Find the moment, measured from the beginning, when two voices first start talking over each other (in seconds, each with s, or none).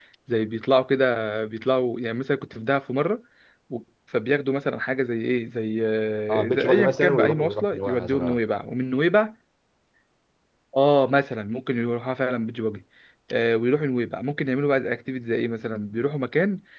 6.3 s